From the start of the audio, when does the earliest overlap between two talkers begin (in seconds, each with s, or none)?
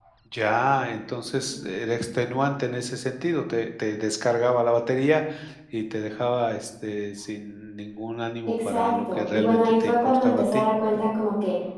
8.5 s